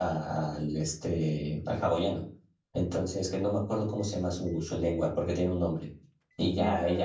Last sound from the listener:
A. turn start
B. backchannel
B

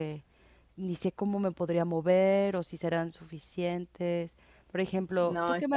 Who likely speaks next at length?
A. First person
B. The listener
A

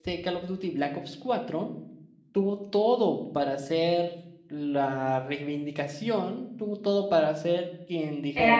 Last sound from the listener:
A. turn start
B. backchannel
A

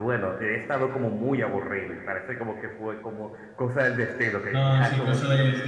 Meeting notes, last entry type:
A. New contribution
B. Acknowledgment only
A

